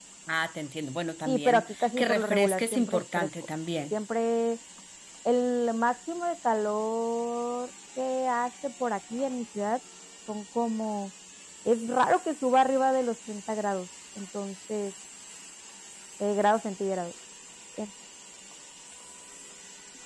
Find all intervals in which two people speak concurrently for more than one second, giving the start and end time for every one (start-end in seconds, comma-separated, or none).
1.3-3.3